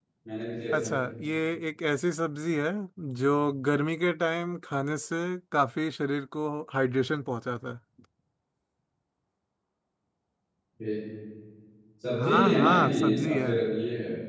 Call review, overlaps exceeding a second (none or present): present